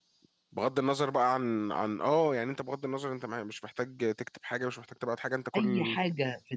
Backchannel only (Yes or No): No